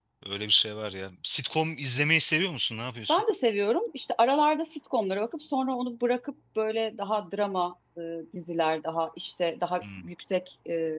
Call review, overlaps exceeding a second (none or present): none